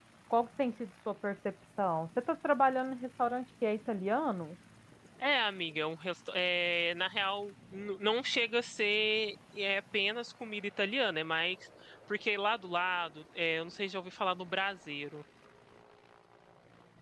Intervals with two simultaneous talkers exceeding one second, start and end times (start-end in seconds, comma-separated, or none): none